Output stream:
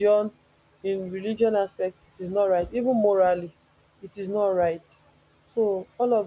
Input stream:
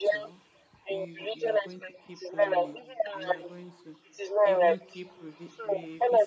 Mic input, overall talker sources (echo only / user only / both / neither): both